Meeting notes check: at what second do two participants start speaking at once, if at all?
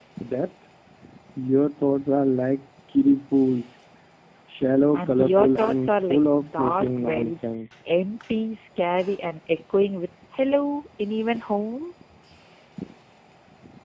5 s

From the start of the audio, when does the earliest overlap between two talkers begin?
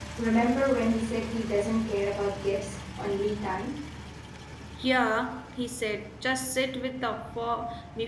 none

